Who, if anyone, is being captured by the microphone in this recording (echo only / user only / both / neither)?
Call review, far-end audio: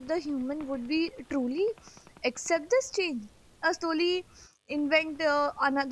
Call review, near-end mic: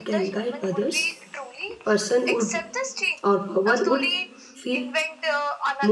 both